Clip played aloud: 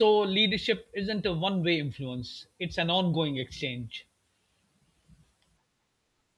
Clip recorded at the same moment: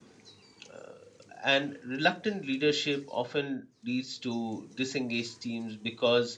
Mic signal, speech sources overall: user only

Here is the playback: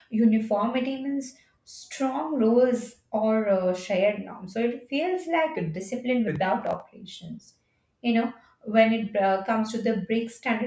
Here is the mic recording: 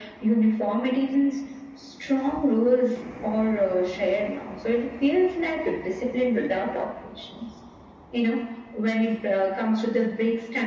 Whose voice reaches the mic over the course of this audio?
echo only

